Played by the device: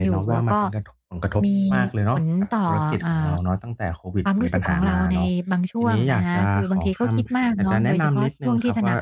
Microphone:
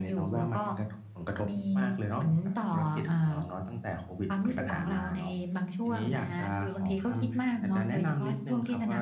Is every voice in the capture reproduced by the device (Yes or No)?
Yes